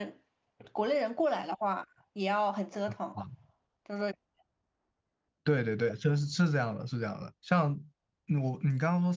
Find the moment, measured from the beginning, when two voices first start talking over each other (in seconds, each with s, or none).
none